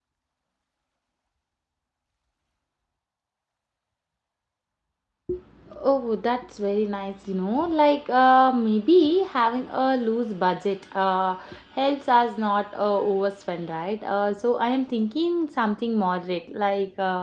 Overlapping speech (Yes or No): No